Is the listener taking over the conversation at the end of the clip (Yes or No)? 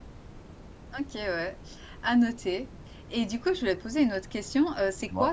No